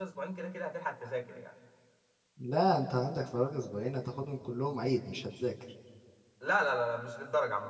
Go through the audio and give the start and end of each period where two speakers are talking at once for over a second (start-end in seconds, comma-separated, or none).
none